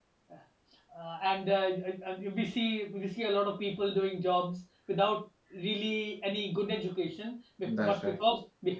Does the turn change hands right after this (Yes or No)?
No